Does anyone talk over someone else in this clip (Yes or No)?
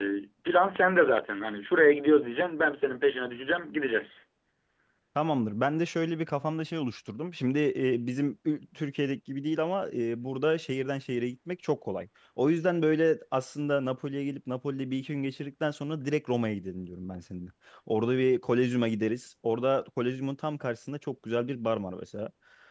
No